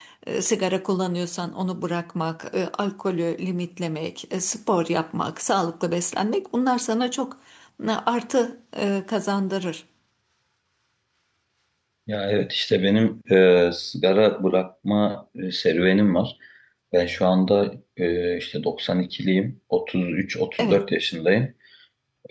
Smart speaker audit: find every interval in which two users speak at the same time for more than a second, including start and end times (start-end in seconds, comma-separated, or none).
none